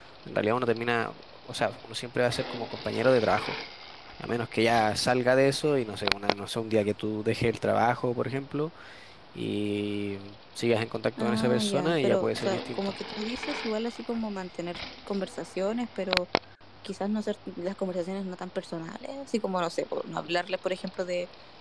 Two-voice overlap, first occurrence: 11.2 s

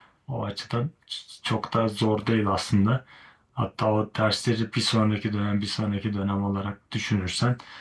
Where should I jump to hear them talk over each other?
none

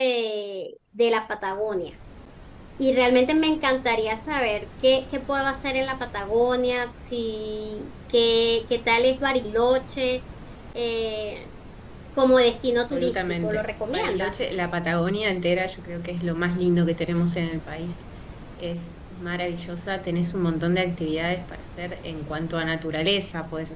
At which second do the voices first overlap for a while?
12.9 s

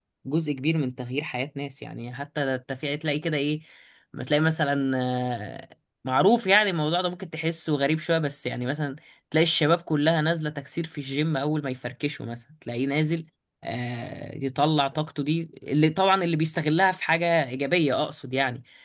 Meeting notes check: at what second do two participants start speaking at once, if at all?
none

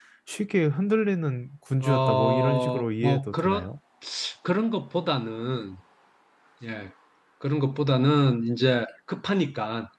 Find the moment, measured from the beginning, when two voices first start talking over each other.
1.8 s

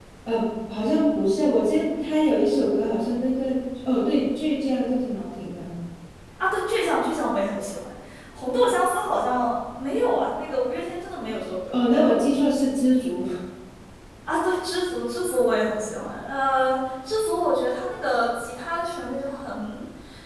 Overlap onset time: none

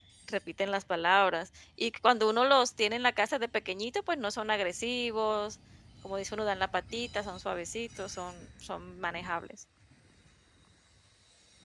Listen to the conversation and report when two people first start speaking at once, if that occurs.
none

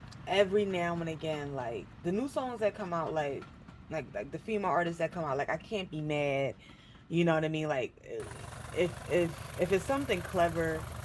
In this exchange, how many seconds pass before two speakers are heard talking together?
none

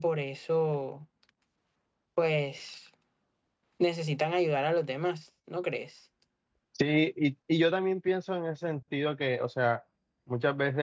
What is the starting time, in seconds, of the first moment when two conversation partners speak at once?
none

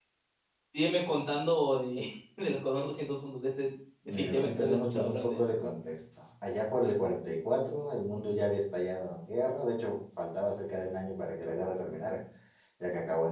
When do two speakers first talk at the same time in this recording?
4.1 s

